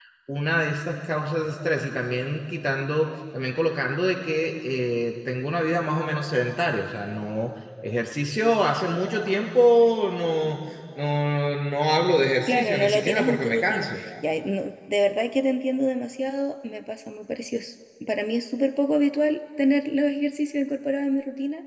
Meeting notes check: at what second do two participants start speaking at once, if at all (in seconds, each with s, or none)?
12.5 s